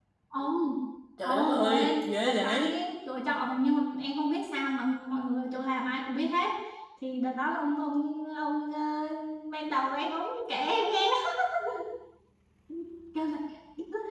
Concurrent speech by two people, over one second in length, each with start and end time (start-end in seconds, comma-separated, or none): 1.2-2.8